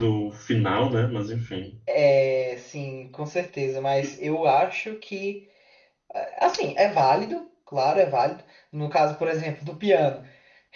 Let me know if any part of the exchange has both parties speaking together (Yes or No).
No